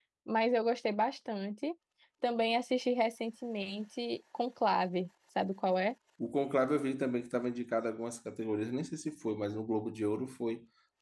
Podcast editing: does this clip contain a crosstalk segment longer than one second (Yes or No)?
No